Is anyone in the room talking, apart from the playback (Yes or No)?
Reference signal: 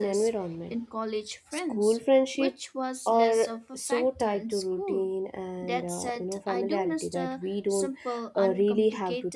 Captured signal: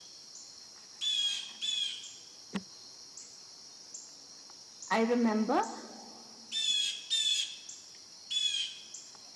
Yes